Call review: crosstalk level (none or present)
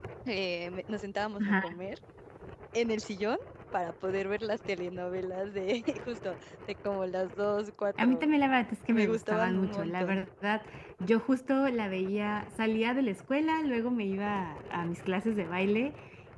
present